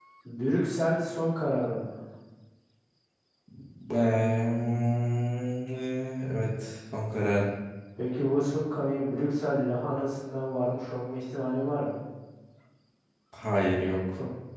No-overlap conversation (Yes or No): Yes